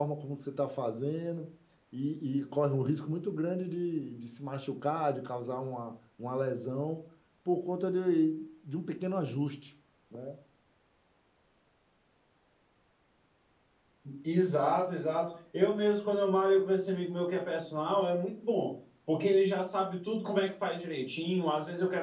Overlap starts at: none

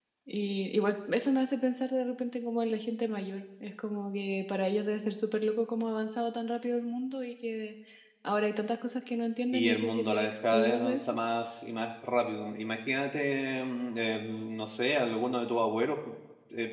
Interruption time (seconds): 10 s

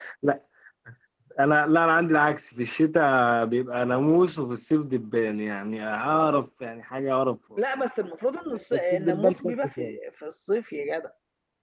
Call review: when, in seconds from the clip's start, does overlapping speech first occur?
9 s

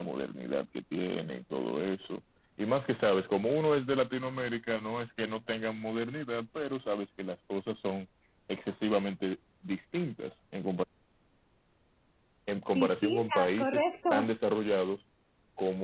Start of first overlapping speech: 13 s

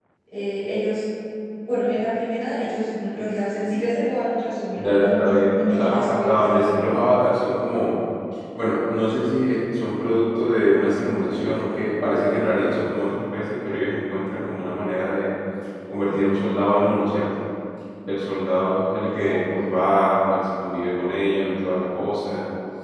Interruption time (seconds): 5 s

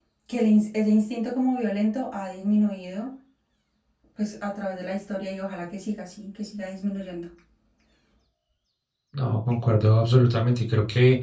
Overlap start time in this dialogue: none

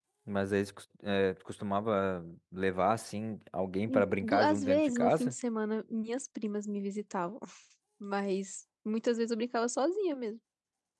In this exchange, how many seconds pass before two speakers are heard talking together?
4 s

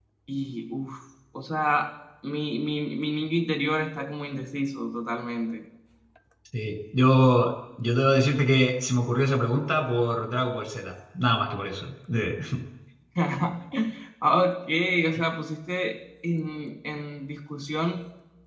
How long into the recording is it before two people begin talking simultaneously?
none

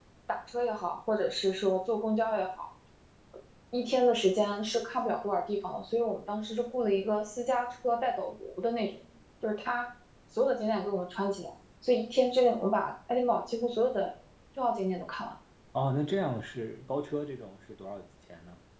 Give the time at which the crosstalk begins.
none

